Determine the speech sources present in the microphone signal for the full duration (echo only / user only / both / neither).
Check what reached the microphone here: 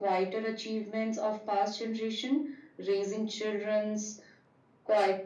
echo only